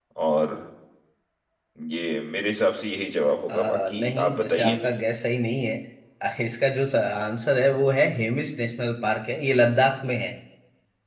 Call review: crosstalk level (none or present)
present